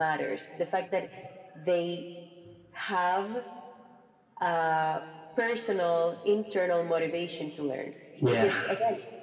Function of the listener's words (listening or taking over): listening